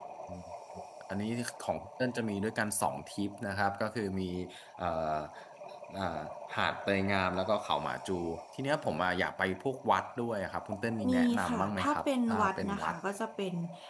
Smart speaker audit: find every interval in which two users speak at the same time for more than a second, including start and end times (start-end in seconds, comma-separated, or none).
11.1-12.9